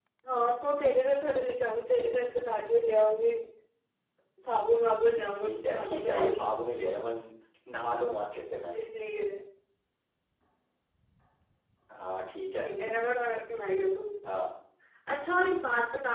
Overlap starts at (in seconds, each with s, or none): 5.2 s